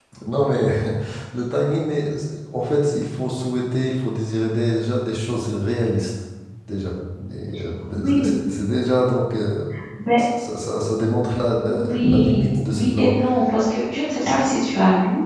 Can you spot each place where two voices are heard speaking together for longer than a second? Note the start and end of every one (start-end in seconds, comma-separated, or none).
11.7-13.1